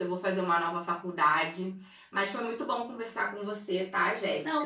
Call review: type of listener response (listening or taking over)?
taking over